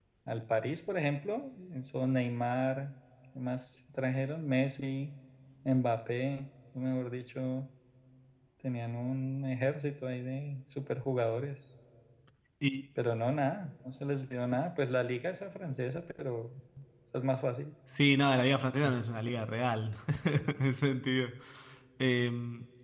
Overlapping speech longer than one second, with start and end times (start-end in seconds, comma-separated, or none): none